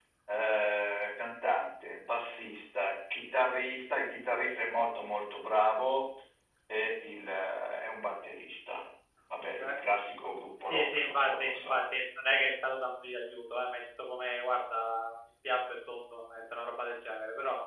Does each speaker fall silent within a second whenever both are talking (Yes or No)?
No